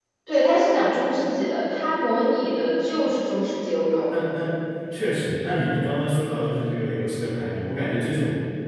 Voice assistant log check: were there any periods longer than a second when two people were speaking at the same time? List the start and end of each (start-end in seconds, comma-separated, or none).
none